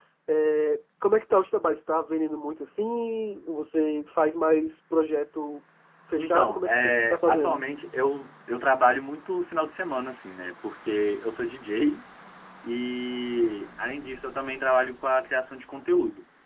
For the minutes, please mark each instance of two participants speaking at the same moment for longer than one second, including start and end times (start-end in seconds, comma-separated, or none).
6.2-7.6